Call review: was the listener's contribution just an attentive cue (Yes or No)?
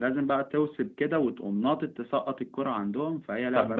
No